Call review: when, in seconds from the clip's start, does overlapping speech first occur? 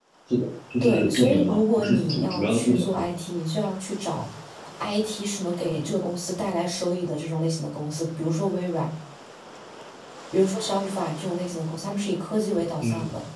1 s

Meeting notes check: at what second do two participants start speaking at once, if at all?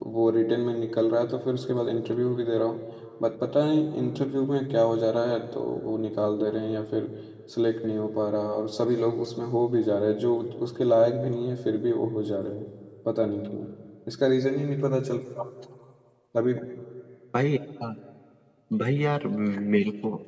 none

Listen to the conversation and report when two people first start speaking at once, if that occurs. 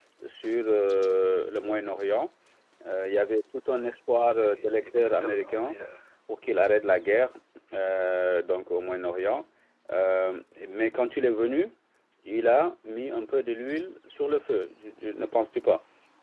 4 s

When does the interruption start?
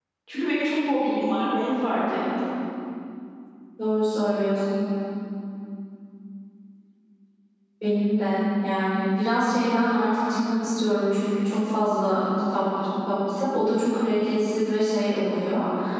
none

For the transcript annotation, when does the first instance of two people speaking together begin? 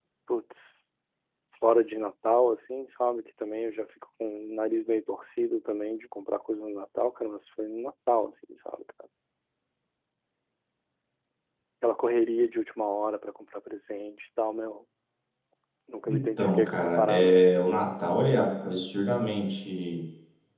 16 s

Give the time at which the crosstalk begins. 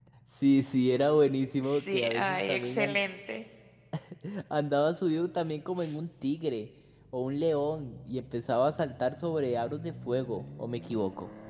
2 s

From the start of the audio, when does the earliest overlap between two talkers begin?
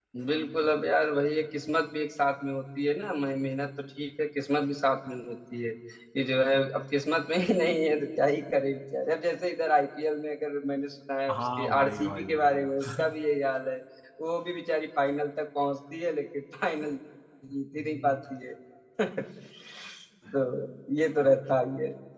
11 s

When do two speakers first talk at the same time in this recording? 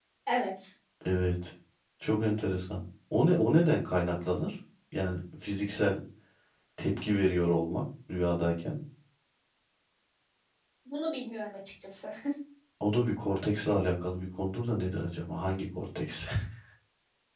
none

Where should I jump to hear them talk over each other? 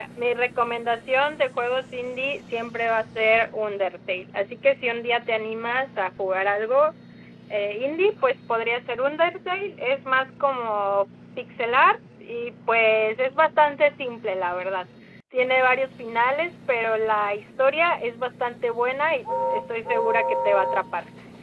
none

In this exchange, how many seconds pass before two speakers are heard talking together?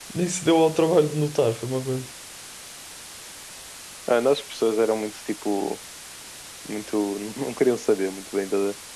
none

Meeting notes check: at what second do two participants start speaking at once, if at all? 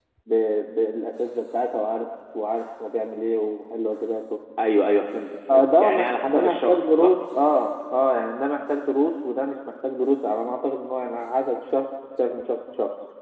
5 s

